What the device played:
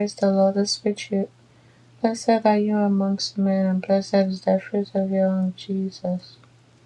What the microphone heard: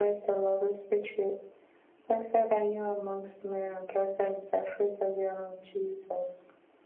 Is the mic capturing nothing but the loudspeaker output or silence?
Yes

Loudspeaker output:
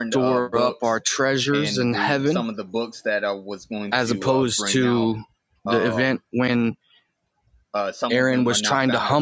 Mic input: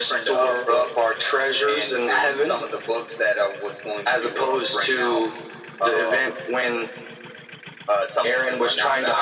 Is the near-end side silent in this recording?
Yes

